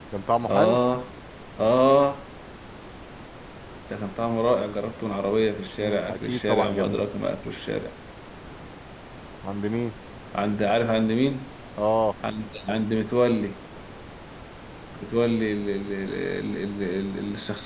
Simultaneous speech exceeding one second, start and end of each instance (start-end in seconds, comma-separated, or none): 5.8-7.0